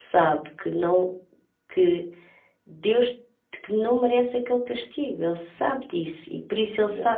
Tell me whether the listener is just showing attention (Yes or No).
Yes